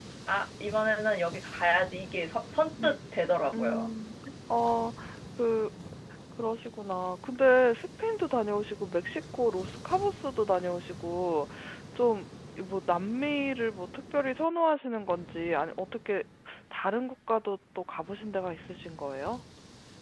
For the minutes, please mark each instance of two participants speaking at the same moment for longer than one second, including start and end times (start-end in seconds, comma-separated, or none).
none